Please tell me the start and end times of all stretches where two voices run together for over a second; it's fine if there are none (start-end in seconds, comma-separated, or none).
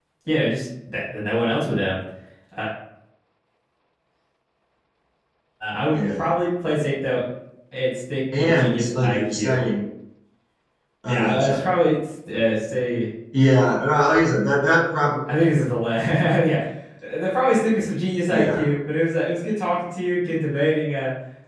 8.3-9.6